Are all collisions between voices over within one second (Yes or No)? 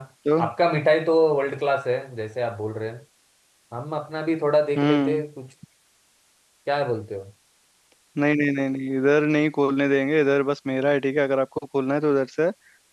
Yes